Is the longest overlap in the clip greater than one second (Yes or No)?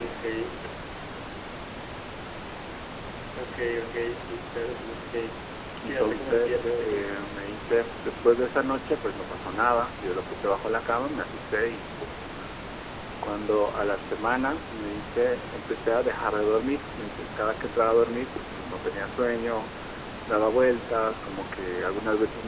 Yes